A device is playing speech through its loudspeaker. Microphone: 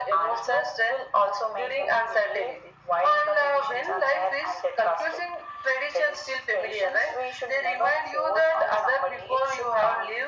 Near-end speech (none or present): none